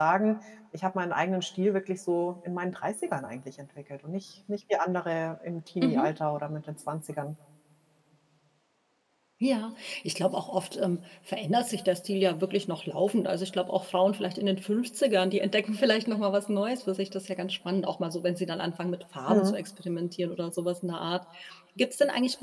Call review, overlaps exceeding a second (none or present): none